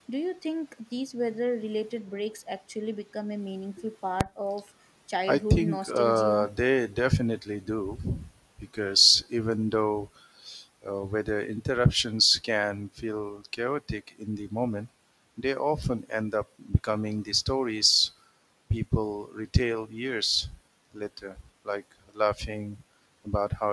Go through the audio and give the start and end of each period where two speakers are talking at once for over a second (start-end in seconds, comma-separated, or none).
5.3-6.5